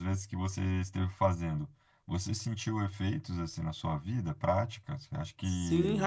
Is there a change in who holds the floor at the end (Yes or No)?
Yes